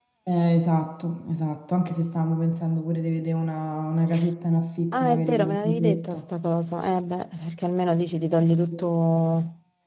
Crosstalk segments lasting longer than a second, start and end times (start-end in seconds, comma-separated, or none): 4.9-6.2